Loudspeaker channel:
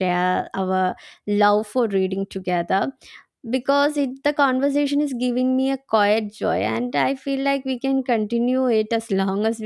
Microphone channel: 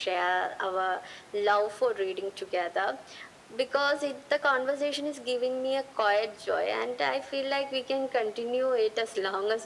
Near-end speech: none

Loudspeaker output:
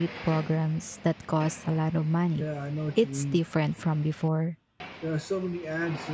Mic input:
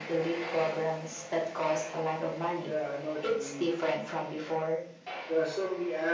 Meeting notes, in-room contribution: none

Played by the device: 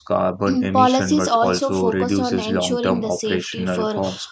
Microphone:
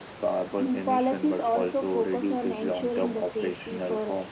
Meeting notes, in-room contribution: none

